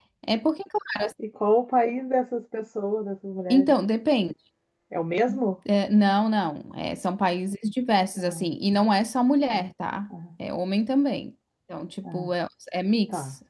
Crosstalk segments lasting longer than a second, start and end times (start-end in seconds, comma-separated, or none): none